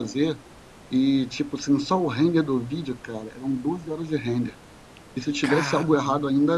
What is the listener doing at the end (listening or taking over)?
listening